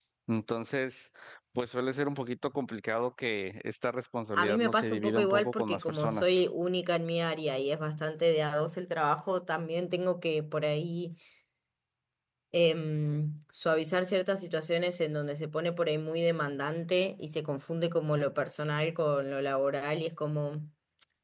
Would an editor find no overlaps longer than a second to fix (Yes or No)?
No